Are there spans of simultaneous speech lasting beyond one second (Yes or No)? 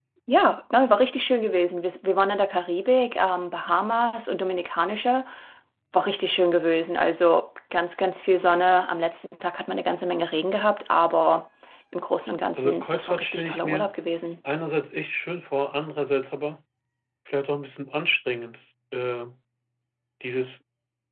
Yes